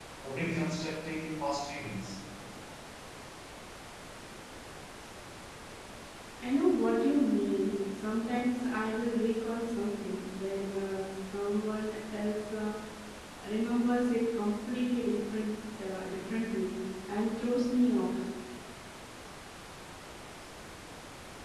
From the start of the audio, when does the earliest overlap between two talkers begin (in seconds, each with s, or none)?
none